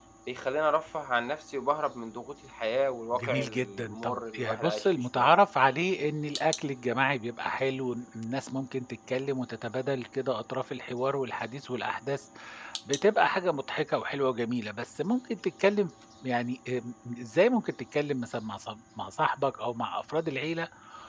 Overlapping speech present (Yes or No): Yes